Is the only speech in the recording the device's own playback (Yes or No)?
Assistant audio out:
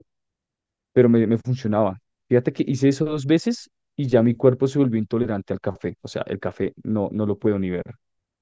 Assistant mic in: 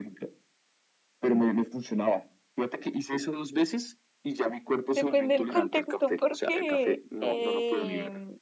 No